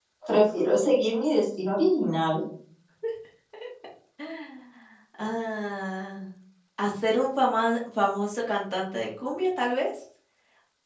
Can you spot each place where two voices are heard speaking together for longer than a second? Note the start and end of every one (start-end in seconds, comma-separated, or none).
none